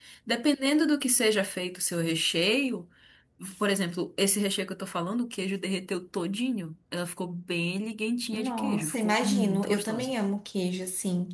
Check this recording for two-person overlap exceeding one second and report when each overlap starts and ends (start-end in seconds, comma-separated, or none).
8.3-10.1